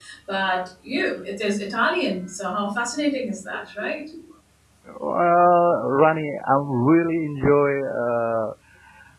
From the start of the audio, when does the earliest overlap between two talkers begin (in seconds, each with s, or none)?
none